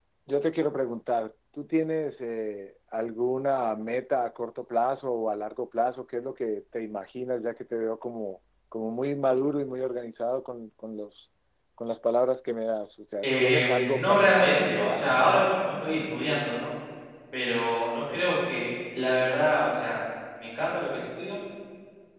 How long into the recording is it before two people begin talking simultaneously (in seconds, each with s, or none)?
13.2 s